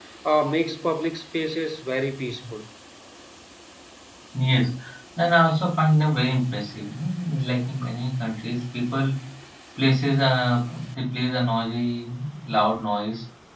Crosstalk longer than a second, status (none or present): none